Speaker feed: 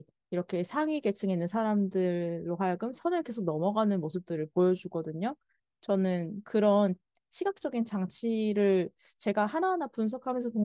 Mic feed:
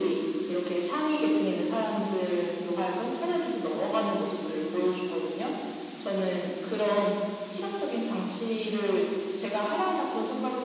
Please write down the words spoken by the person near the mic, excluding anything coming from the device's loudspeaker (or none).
none